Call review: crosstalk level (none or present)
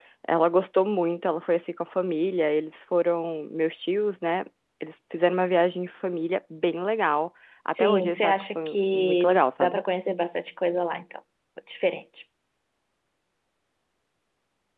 present